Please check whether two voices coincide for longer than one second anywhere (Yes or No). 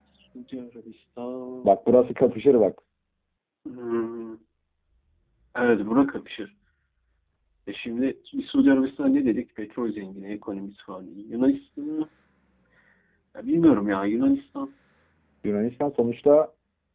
No